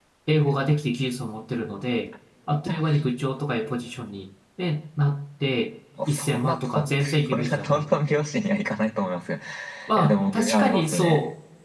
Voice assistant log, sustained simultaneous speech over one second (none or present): present